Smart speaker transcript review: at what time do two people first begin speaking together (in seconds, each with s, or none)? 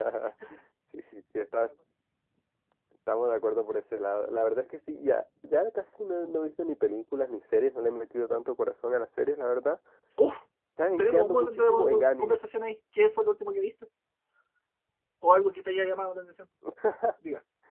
11.0 s